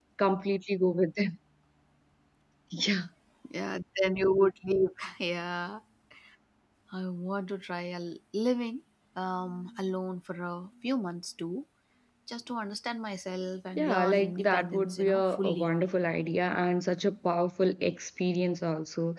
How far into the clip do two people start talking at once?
14 s

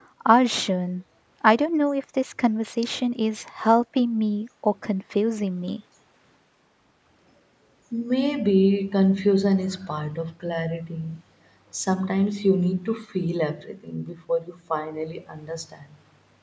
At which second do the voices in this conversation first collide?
none

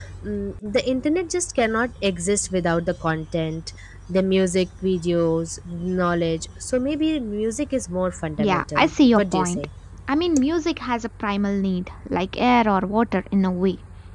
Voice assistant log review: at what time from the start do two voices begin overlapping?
8 s

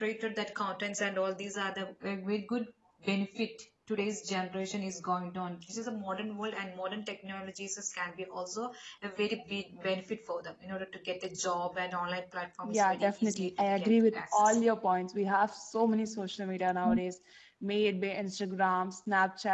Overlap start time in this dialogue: 13 s

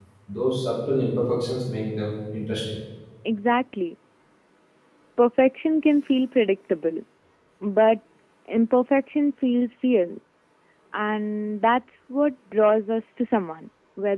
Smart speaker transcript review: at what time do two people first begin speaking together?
none

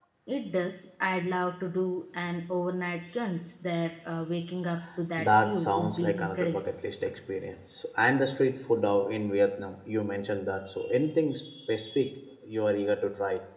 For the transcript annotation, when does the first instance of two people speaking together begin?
5 s

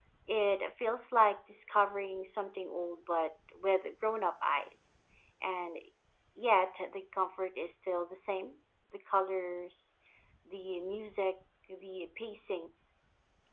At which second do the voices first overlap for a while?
none

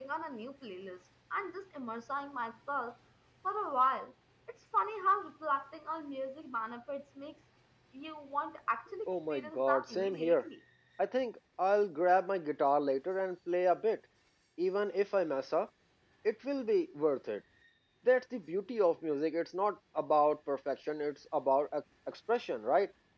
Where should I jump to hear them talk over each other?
9 s

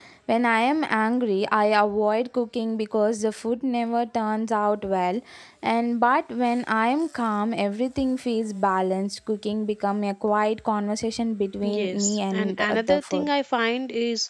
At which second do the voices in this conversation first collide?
12 s

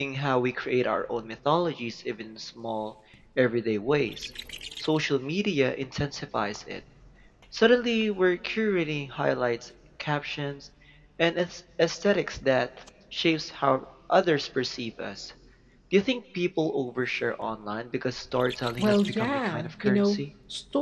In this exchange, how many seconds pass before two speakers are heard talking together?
19 s

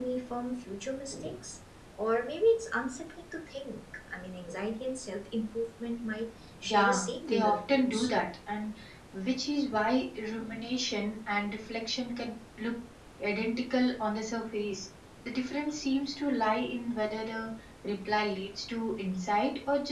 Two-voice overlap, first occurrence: 7 s

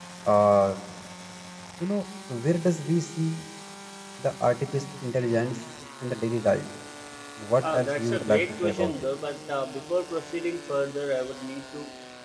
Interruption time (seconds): 8 s

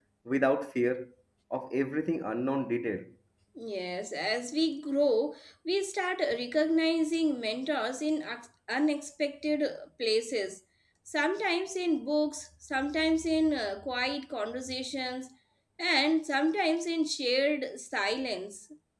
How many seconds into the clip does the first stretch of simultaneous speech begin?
none

